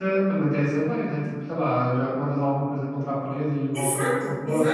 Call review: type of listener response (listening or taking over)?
taking over